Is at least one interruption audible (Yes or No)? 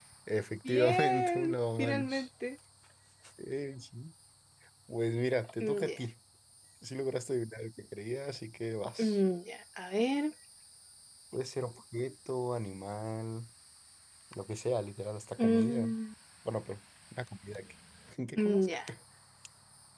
Yes